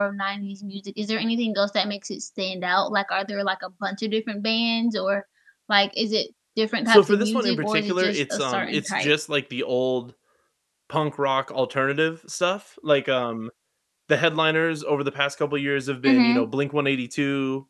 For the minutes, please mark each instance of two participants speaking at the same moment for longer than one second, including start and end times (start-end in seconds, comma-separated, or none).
6.9-9.1